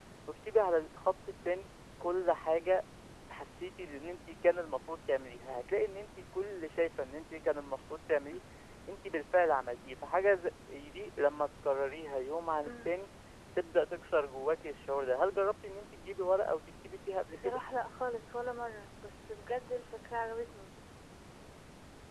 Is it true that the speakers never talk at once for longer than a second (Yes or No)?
Yes